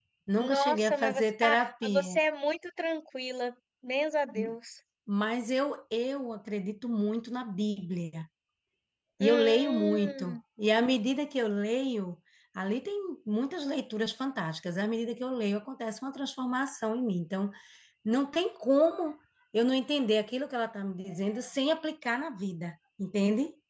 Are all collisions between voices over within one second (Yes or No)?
No